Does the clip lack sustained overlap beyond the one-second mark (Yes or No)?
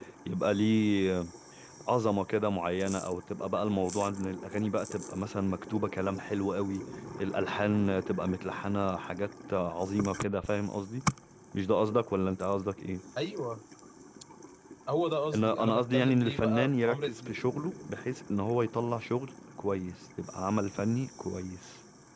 No